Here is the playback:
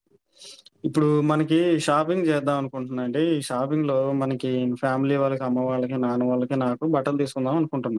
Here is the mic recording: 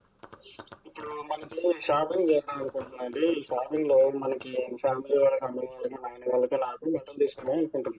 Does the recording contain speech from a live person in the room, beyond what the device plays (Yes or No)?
No